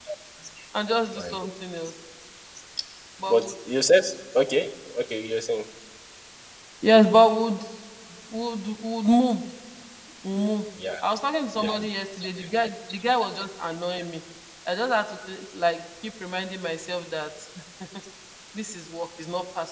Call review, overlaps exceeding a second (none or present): none